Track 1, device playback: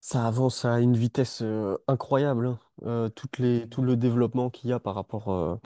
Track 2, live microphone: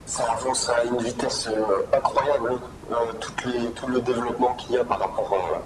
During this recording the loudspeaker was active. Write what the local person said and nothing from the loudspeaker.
none

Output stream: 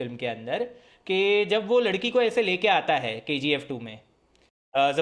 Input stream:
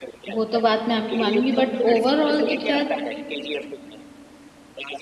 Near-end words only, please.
वो तो बात मैं आपकी मानूंगी बट ओवरऑल तो खैर

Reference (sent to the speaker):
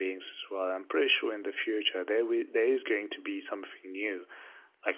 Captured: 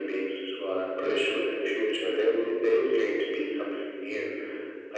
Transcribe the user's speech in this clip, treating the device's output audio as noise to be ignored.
none

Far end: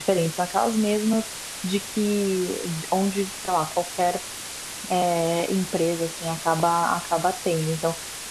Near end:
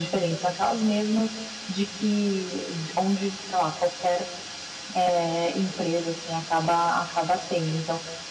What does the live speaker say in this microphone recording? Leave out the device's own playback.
none

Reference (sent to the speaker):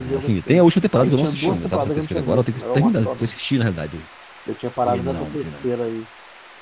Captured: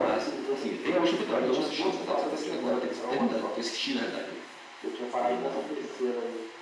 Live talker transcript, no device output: none

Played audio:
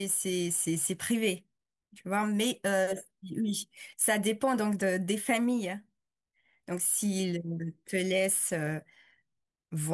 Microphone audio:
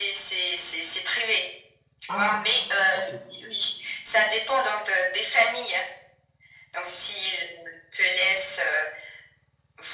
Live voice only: Ah, OK.

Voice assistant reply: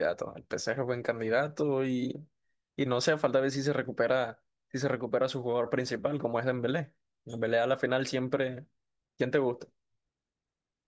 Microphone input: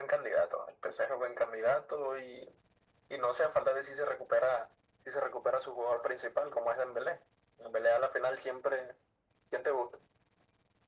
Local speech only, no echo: none

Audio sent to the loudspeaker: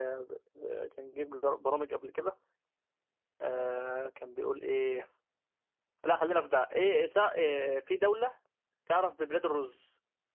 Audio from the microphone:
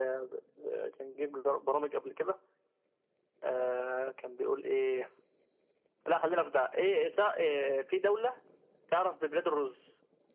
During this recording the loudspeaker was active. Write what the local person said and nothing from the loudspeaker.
none

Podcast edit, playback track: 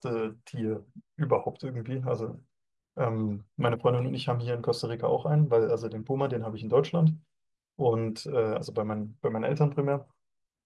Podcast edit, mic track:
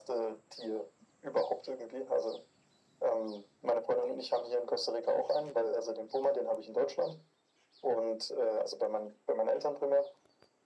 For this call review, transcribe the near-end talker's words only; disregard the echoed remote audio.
none

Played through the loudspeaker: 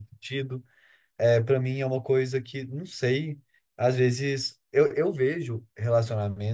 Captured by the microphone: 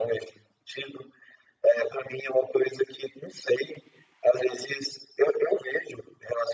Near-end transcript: none

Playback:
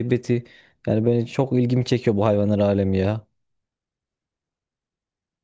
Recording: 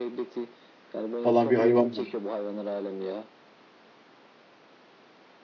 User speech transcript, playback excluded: falan bir hayvan var.

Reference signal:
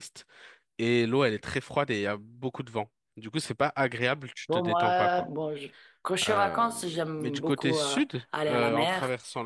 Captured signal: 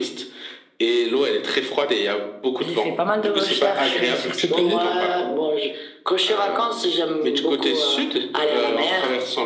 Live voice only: J'ai fait pas mal de recherches euh, sur ce pays.

